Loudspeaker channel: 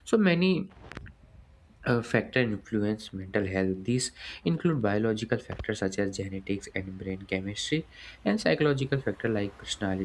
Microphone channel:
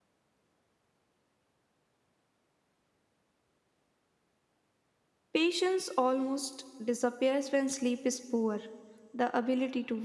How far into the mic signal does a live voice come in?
5.3 s

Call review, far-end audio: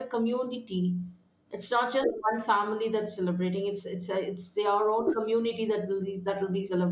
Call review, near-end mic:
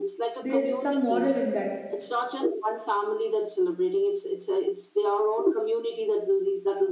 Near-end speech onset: 0.4 s

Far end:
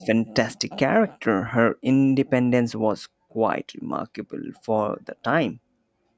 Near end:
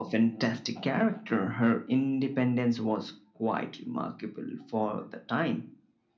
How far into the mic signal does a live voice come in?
none

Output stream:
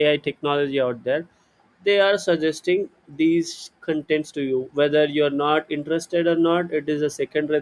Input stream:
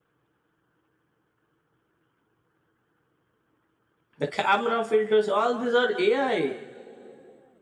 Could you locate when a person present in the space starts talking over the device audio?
4.2 s

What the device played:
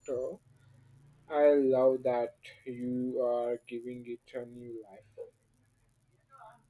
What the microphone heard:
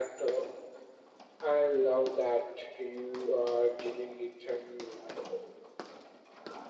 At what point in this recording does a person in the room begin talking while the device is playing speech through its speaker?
none

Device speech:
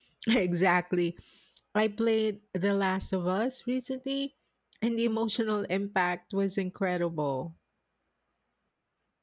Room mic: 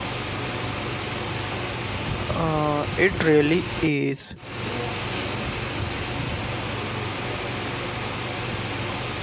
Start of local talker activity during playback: 2.3 s

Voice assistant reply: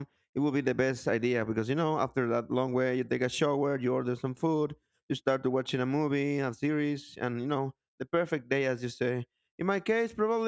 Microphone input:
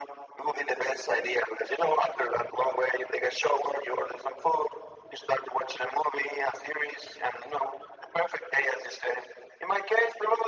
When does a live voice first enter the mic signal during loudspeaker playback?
none

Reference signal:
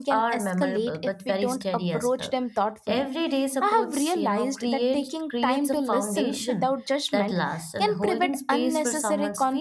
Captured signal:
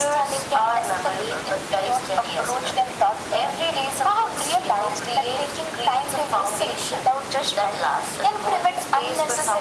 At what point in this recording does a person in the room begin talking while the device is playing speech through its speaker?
none

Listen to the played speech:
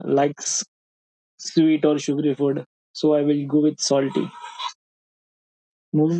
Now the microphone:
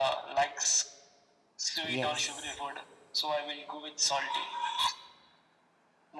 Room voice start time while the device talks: 1.8 s

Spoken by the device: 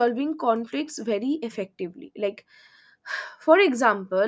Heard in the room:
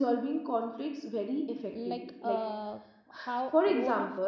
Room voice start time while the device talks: 1.7 s

